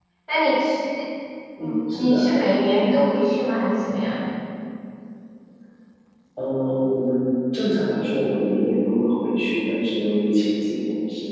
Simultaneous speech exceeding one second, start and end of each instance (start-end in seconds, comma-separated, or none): none